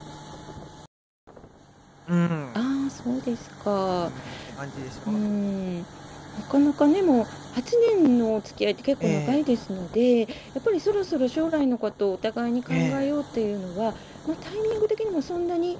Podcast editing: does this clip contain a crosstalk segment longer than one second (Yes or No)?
No